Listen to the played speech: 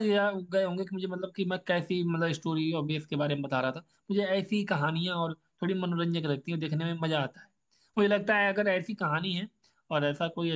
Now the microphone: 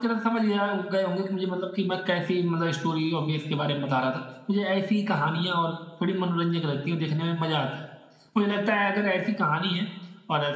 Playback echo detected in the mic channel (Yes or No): Yes